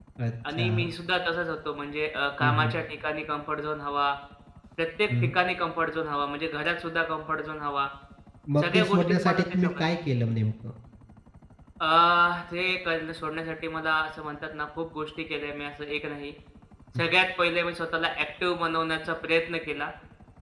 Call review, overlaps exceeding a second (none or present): present